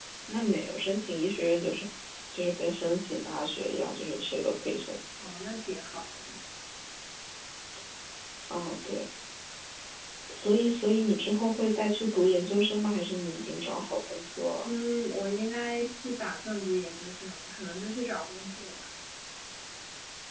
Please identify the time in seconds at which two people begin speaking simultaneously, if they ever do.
none

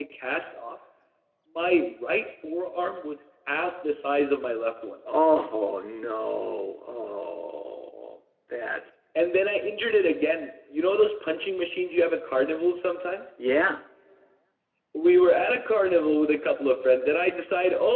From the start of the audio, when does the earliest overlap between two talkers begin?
none

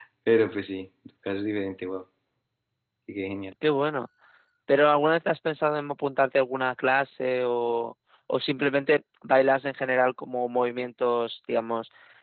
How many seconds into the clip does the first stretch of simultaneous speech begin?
none

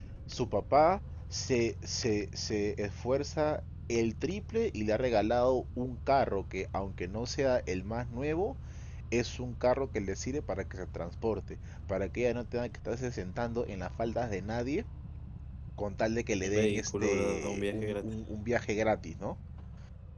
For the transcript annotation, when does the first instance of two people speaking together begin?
16 s

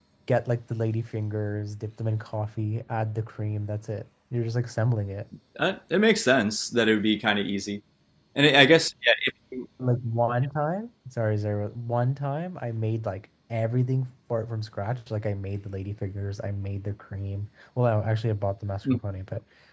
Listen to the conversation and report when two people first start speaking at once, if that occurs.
none

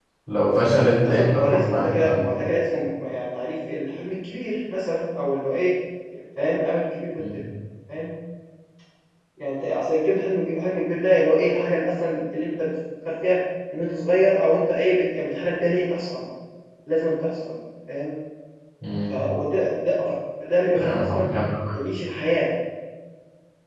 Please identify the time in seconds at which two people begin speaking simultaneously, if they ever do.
1 s

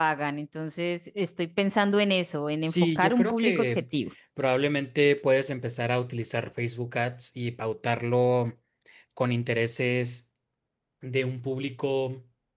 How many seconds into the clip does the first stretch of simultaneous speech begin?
3 s

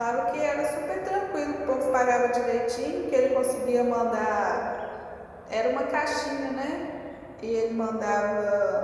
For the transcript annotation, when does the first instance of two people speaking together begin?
none

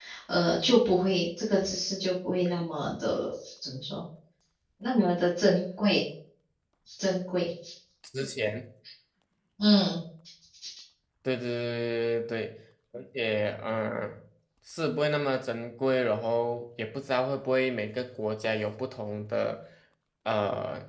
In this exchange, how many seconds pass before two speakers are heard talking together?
none

